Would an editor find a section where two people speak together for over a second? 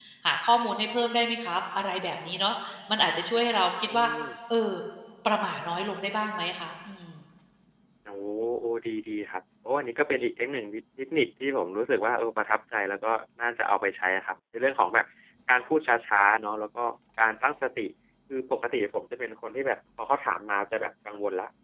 No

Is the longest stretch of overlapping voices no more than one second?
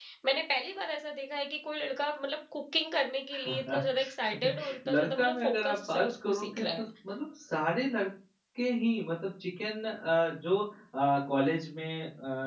No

